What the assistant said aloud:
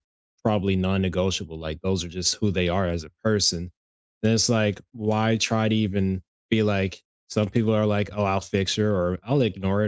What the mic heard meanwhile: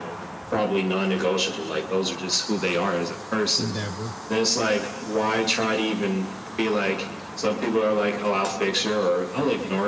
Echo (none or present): present